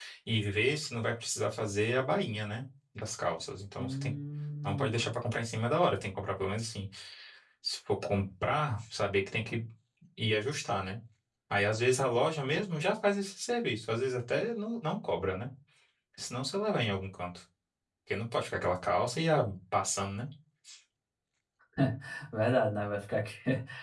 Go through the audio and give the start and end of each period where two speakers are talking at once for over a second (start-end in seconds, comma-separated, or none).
none